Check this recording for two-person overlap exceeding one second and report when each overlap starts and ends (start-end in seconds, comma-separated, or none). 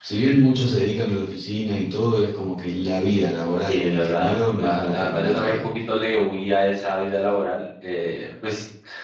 3.7-5.6